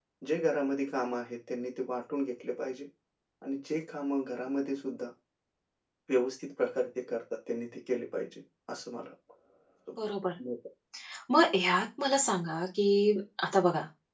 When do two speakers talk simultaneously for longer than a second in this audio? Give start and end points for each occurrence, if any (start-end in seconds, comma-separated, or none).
none